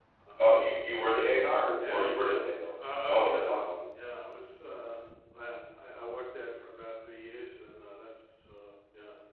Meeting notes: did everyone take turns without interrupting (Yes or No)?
No